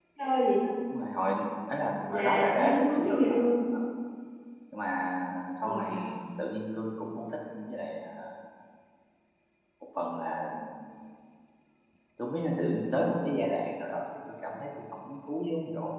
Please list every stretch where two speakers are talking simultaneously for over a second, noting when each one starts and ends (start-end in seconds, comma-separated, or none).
1.9-3.5